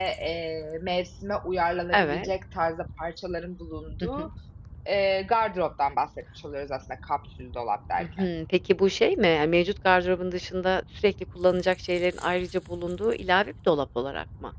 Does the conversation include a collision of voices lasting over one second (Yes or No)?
No